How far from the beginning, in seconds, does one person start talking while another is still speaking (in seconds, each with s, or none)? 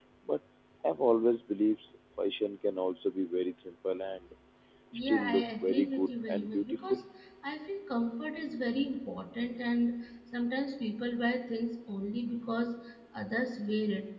5.1 s